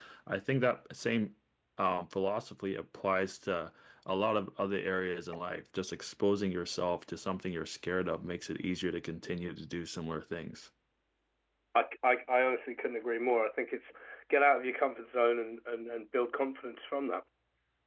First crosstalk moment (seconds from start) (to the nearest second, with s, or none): none